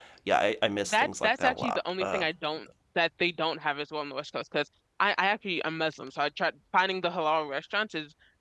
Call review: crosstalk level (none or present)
present